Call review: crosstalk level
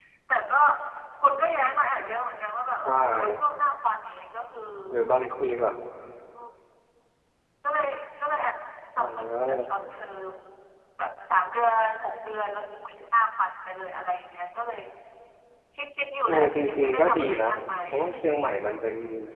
present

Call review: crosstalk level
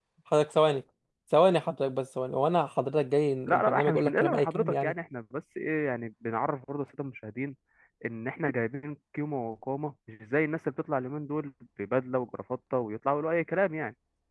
present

